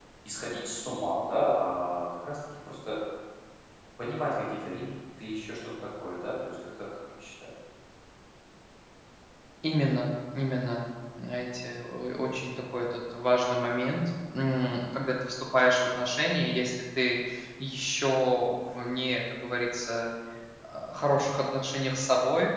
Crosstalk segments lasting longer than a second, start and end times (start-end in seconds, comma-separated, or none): none